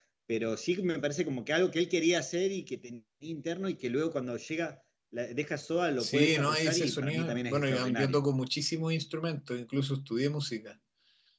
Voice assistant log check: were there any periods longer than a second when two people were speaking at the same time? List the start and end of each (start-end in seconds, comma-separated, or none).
6.0-8.2